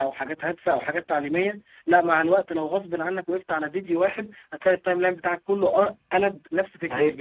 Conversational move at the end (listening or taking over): taking over